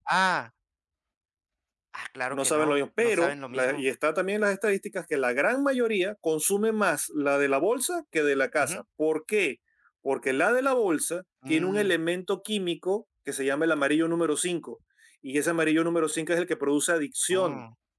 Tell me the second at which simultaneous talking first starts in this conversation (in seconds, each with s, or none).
2.3 s